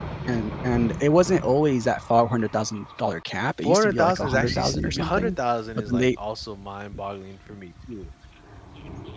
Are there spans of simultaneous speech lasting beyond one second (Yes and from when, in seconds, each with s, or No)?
Yes, from 3.6 s